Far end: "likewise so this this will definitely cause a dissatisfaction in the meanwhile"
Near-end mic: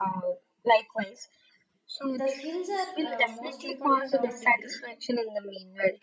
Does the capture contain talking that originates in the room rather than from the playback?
Yes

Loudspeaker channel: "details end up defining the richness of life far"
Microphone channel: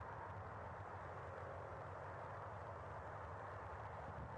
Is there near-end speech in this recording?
No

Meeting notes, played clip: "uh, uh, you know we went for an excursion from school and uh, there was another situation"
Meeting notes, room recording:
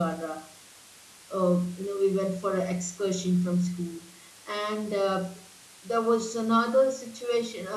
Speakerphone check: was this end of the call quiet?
Yes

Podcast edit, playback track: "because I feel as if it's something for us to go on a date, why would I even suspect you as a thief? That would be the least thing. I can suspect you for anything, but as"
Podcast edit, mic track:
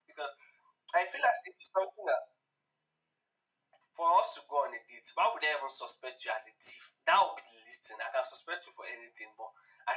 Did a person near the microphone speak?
No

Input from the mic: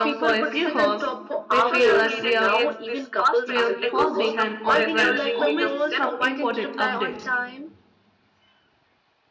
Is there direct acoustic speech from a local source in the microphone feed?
Yes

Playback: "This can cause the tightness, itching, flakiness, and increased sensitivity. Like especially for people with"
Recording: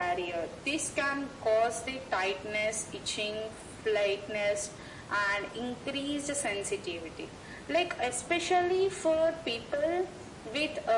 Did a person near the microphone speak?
No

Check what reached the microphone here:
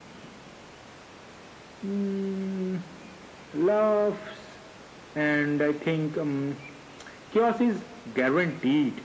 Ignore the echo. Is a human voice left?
No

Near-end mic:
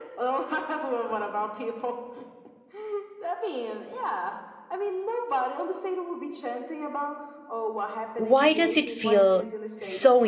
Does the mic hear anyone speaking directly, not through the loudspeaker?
Yes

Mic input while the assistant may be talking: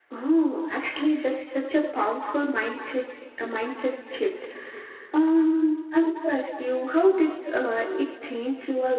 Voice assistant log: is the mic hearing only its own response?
Yes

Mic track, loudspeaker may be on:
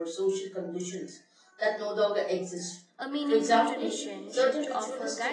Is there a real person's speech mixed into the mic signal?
Yes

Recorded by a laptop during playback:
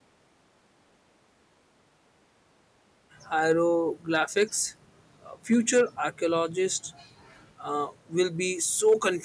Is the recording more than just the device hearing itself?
Yes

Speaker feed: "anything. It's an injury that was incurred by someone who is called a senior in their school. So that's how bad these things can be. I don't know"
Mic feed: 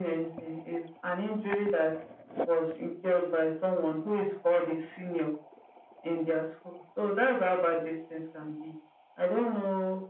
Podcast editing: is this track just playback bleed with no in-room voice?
Yes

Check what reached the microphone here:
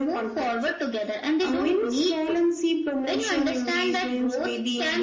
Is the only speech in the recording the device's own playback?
Yes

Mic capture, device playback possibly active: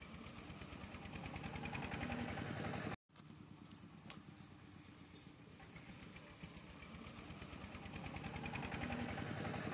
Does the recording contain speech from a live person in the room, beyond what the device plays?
No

